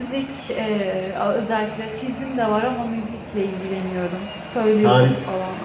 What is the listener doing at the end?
taking over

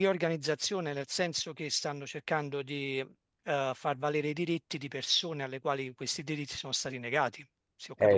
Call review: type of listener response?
taking over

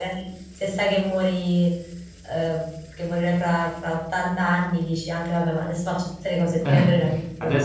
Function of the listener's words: taking over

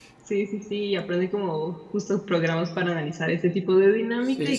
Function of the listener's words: listening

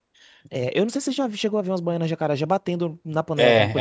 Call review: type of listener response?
taking over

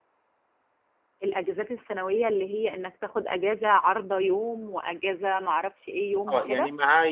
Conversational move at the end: taking over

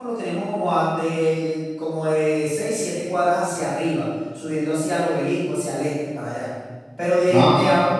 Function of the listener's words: listening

